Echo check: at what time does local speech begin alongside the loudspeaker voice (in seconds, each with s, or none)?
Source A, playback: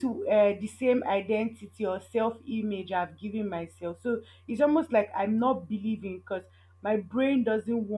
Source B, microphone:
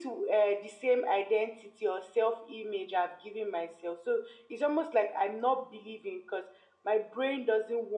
none